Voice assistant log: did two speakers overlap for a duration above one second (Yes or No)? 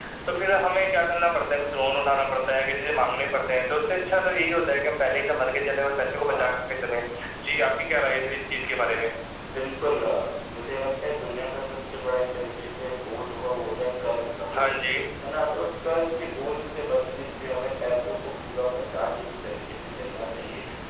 No